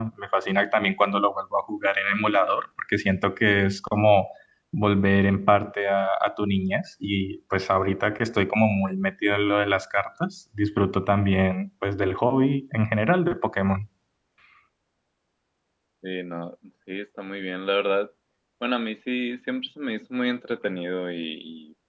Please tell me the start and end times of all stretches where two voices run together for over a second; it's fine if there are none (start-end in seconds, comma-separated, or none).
none